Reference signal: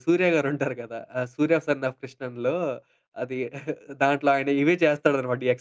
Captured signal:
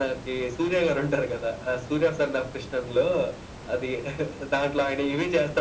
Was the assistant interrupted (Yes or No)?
No